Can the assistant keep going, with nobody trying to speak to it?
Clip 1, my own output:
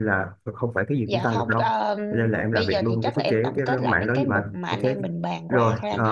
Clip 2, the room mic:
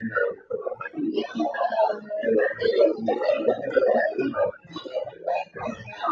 Yes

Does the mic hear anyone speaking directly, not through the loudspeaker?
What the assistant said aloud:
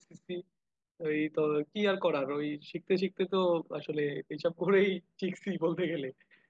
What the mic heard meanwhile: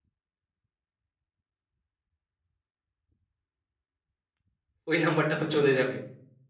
Yes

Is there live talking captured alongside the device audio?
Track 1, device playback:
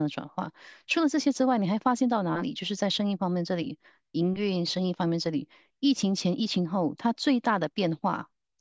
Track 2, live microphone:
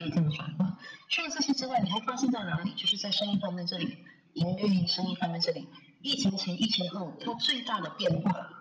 No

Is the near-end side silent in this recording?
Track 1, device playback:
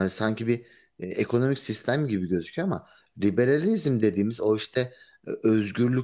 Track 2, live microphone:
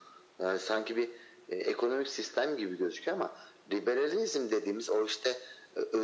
Yes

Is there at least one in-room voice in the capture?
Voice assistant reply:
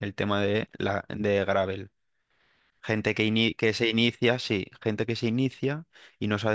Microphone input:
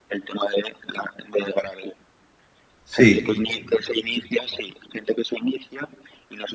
Yes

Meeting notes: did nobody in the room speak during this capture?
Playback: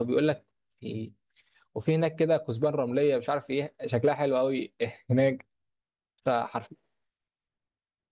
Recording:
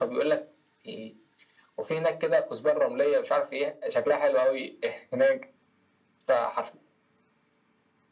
Yes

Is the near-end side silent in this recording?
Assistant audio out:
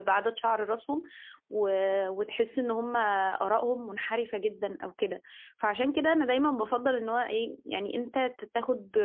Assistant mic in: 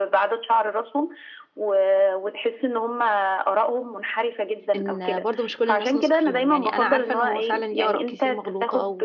No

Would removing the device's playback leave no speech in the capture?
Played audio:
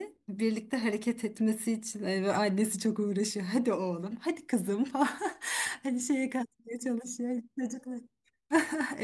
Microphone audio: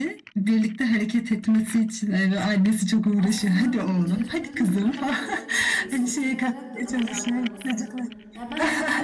No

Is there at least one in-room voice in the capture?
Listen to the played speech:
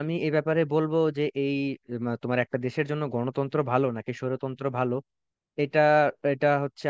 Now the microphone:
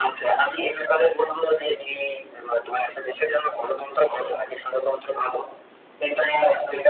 No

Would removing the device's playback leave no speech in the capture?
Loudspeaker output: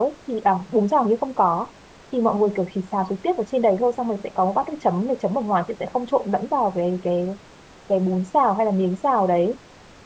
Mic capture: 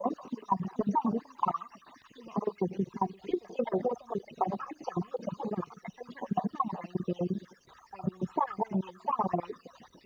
Yes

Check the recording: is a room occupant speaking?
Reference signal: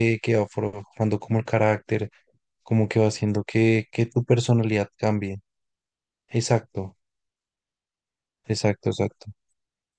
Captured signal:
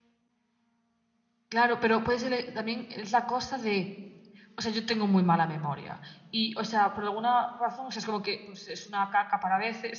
Yes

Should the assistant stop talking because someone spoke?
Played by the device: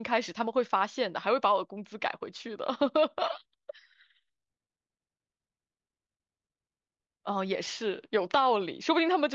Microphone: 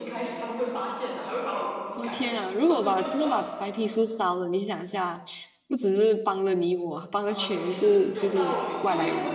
Yes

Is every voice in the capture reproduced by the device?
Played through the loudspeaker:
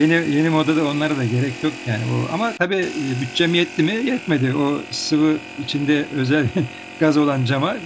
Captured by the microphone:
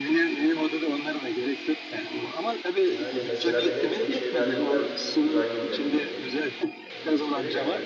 No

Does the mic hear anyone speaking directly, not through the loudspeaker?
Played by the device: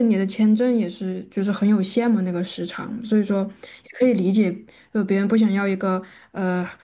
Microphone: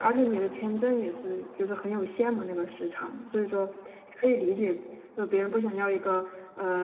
No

